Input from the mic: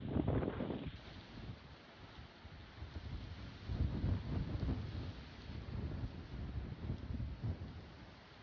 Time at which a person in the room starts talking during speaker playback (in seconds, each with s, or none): none